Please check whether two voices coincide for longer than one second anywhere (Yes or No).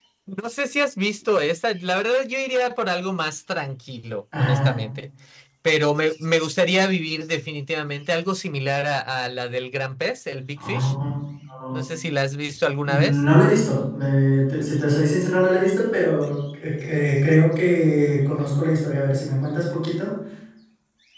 No